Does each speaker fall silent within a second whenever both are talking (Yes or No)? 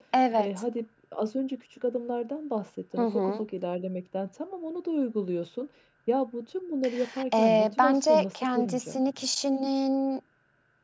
No